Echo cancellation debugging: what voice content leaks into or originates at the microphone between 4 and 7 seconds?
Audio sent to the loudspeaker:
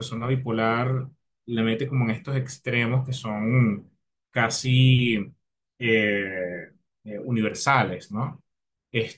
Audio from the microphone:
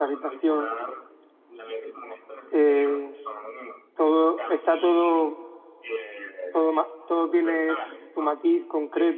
both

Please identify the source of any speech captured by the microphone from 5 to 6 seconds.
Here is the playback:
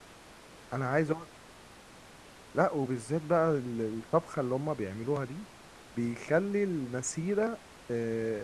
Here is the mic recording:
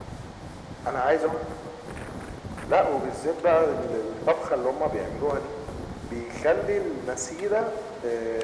echo only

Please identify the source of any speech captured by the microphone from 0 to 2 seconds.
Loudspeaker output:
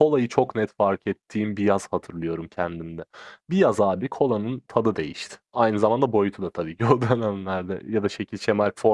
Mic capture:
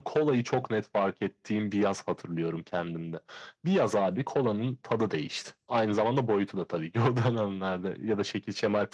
echo only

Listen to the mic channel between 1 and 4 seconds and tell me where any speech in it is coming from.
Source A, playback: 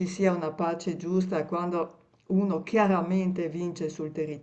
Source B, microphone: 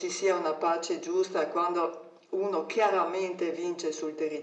echo only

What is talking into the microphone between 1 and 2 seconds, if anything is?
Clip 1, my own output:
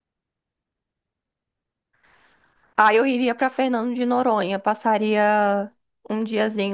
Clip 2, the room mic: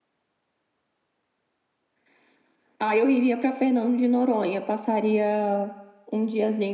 neither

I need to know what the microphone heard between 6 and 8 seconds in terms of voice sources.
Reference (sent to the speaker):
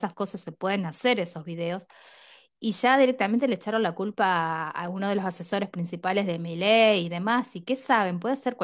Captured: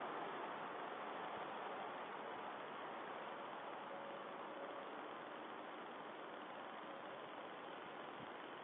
neither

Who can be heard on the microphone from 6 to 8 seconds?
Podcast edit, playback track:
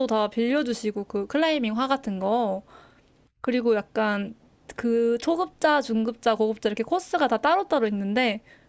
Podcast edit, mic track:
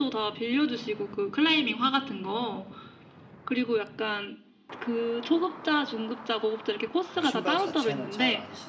both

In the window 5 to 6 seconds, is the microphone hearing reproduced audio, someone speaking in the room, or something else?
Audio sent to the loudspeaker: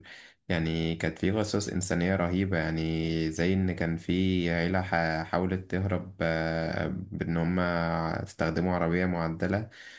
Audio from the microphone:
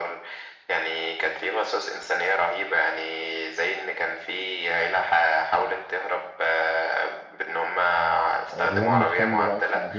echo only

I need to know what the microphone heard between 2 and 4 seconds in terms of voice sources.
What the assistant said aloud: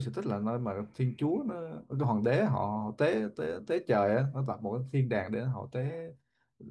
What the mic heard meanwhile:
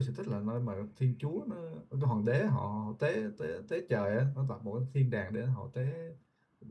echo only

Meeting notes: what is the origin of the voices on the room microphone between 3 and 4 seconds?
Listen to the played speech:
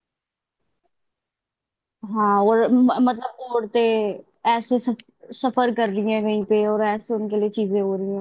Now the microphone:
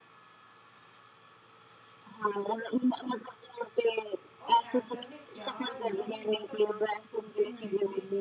echo only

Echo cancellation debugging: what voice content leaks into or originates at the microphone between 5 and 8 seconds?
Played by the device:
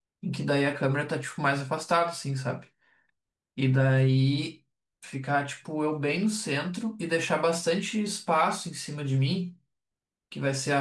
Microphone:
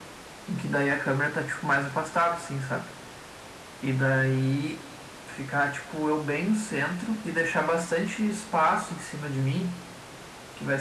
echo only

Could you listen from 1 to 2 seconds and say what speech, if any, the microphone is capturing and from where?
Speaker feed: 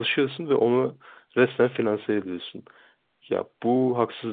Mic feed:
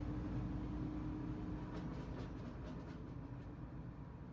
neither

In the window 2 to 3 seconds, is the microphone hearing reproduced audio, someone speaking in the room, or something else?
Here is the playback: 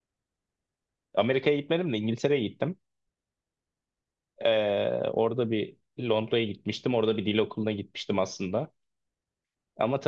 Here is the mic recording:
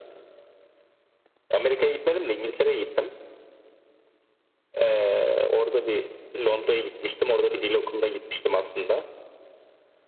echo only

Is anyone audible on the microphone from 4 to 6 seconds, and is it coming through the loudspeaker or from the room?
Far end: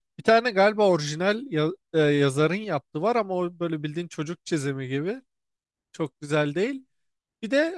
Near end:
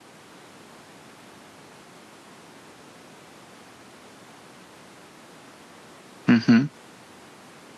neither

